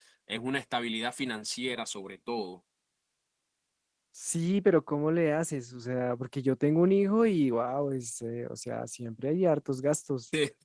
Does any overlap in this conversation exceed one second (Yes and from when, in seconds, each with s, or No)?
No